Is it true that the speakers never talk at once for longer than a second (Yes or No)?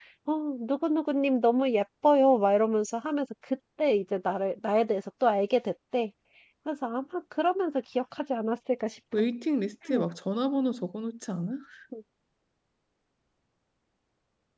Yes